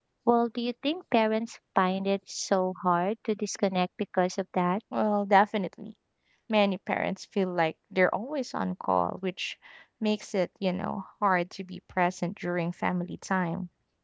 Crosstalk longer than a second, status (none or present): none